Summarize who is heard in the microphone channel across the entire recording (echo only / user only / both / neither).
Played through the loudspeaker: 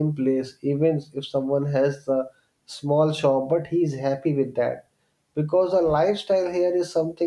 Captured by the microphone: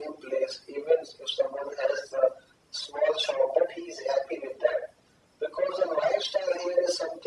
echo only